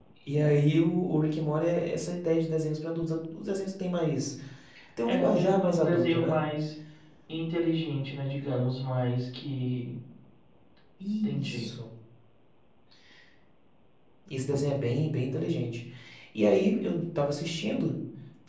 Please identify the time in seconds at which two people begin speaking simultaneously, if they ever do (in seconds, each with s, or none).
5.0 s